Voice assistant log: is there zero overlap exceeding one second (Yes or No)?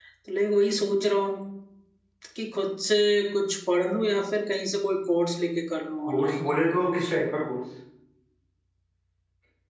Yes